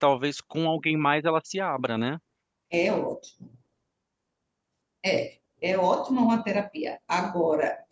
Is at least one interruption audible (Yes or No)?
No